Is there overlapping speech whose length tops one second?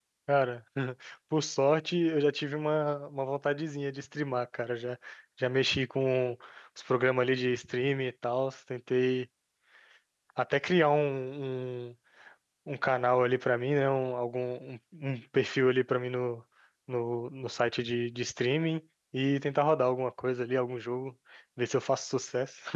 No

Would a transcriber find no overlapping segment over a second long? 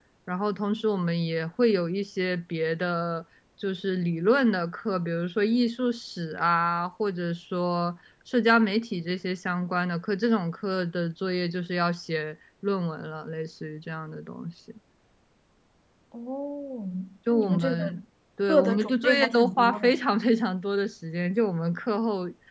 No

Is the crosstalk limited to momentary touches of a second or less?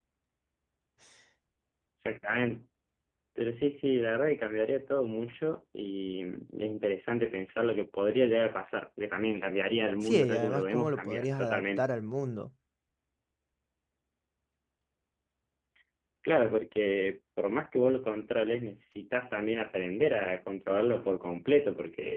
No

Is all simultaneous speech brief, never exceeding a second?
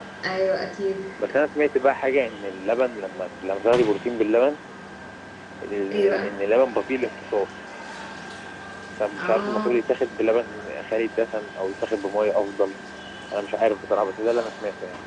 Yes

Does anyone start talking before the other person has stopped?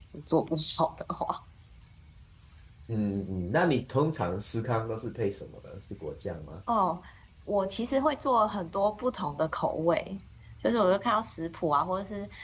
No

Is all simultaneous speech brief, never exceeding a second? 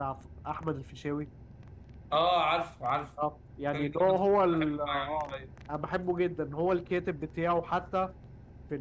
No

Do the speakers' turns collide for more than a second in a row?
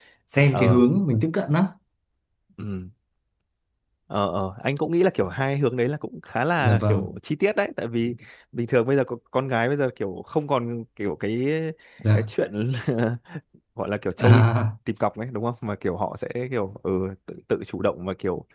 No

